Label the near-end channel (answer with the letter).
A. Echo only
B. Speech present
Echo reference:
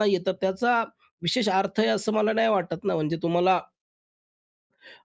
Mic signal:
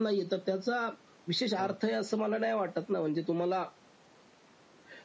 B